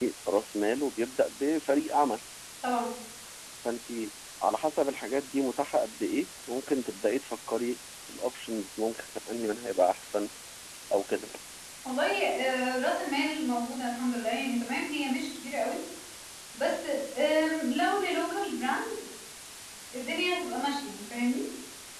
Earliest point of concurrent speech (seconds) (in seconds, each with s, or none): none